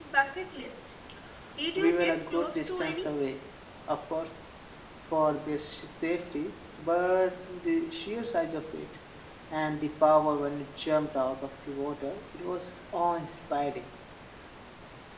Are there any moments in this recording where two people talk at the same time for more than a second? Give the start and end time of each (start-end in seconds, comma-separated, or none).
1.8-3.1